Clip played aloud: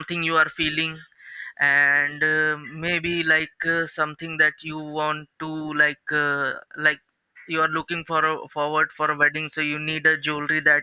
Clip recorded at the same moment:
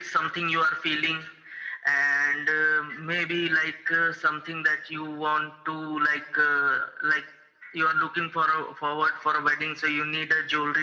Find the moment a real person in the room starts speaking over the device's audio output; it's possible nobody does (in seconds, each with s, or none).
none